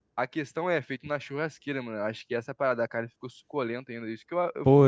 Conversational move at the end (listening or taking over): taking over